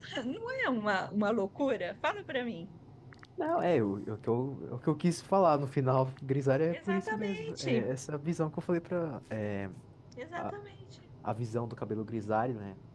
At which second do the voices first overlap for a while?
7 s

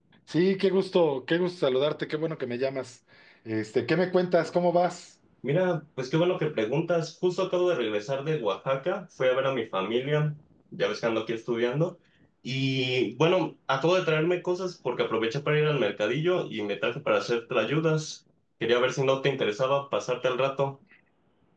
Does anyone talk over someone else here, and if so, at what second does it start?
none

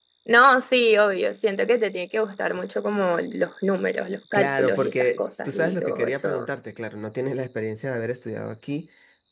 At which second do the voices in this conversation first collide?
4 s

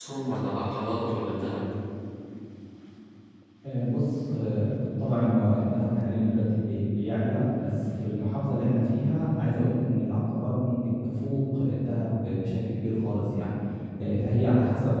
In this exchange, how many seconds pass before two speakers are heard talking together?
none

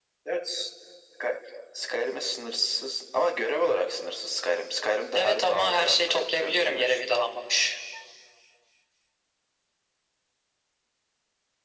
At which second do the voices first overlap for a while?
5 s

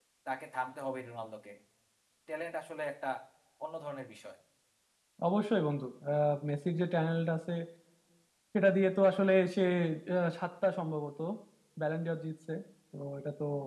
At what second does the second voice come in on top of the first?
none

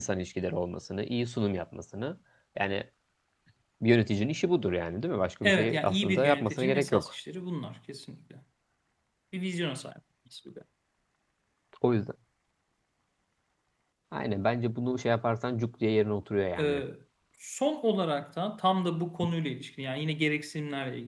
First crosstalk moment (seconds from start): 5 s

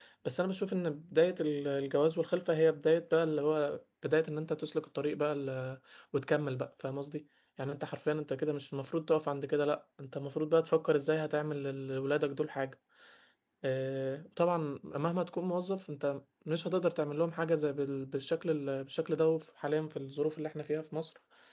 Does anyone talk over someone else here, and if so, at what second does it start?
none

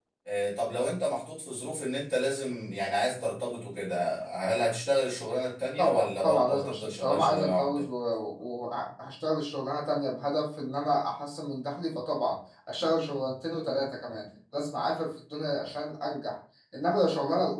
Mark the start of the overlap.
6 s

